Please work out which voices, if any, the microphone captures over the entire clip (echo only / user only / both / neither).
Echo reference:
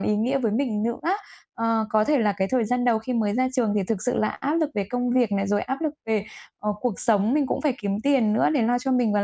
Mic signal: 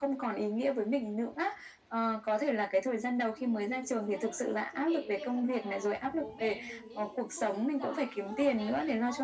both